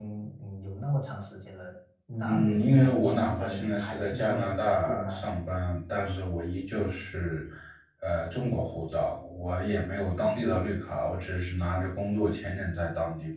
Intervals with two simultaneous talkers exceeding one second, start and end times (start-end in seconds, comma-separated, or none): 2.2-5.2